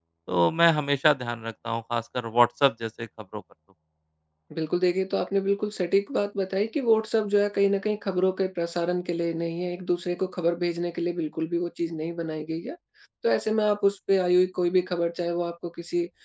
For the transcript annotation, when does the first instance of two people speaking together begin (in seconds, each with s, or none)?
none